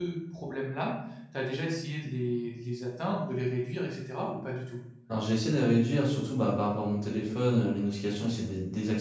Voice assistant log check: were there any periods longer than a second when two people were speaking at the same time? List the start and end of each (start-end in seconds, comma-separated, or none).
none